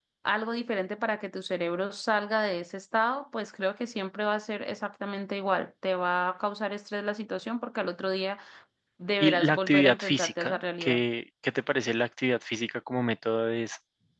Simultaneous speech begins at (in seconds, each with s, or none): 9.2 s